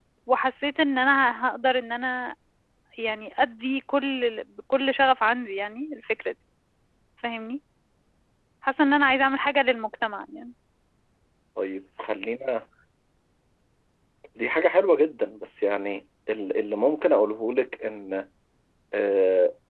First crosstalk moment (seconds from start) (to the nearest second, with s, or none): none